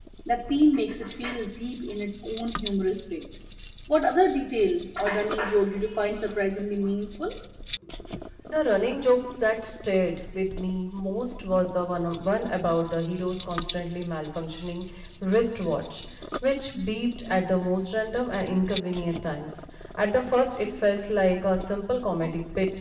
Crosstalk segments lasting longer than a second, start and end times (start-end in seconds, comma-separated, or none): none